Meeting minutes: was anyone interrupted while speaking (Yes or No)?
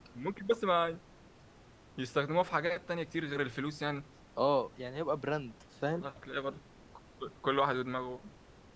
No